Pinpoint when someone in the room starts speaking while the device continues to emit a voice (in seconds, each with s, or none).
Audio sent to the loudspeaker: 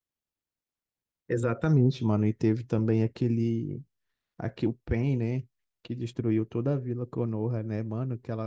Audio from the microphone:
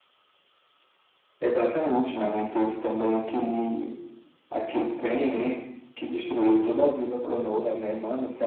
none